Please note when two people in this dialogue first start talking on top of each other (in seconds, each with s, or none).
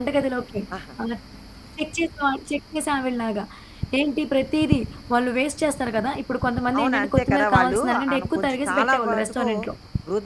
6.7 s